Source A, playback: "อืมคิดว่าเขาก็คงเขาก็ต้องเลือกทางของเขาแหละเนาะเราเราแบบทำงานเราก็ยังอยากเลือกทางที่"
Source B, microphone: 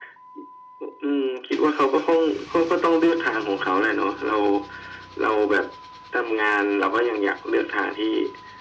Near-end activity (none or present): none